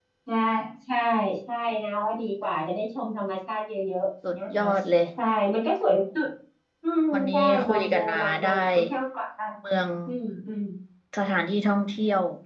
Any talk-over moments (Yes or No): Yes